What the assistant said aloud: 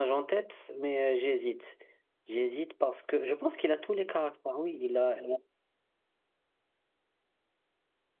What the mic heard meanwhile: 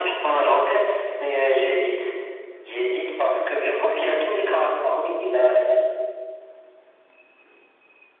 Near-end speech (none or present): none